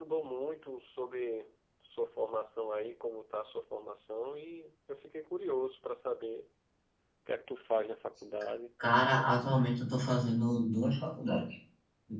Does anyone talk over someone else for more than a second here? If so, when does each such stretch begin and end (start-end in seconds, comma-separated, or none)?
none